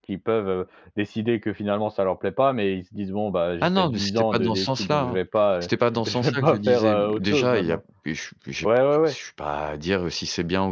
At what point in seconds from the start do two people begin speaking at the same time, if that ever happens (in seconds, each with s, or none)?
3.6 s